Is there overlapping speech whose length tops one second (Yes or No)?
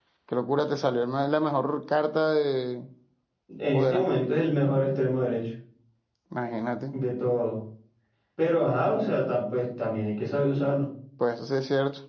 No